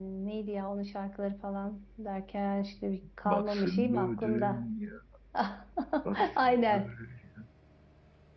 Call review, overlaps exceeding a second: present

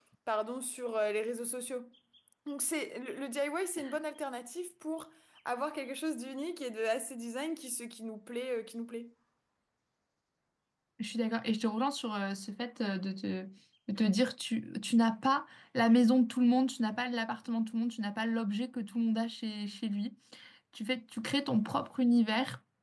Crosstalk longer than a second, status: none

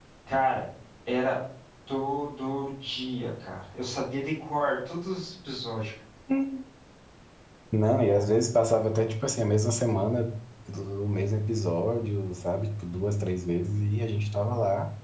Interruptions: none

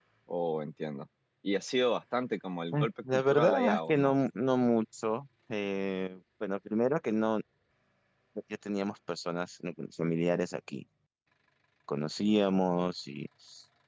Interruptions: present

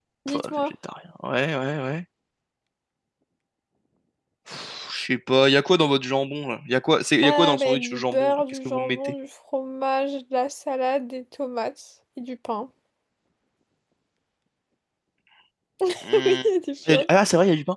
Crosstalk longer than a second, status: present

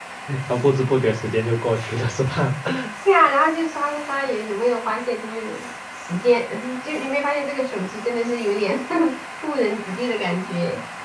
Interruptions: none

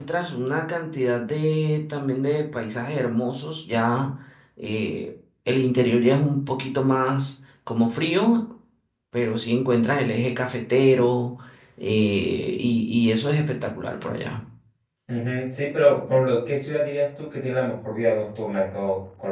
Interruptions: none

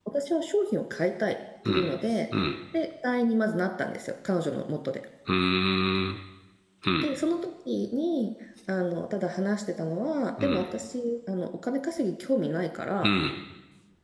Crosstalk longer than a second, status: none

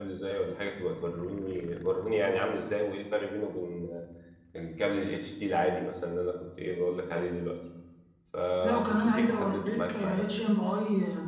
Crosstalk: present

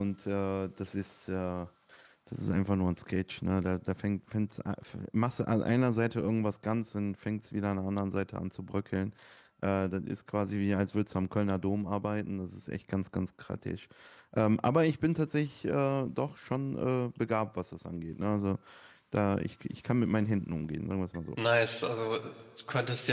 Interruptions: none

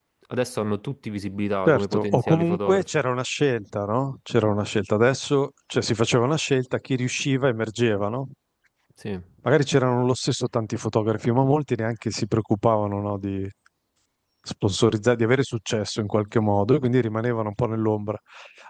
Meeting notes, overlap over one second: present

